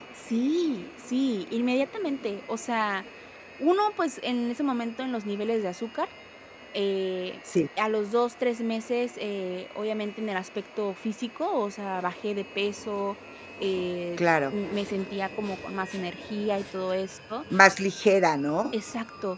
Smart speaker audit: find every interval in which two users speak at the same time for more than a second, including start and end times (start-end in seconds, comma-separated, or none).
none